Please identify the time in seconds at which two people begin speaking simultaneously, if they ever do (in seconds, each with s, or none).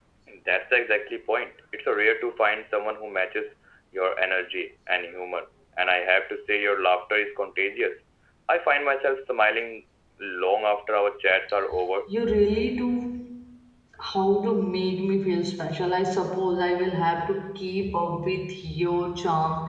none